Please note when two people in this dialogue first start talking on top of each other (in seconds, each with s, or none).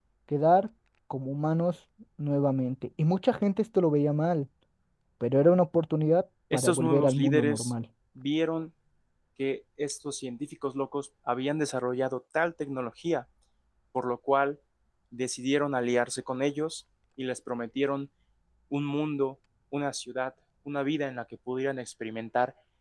6.5 s